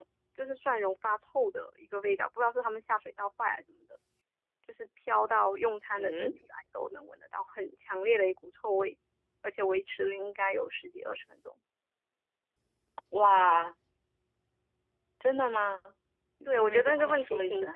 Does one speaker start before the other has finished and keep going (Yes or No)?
Yes